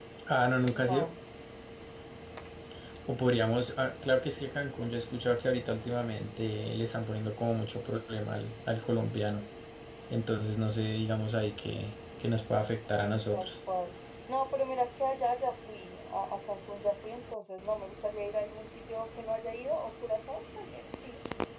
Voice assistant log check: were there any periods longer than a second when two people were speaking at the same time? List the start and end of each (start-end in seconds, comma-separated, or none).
none